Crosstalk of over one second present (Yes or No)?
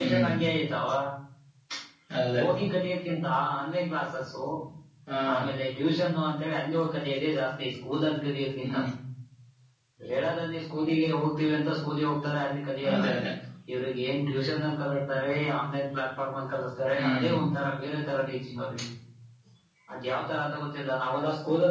No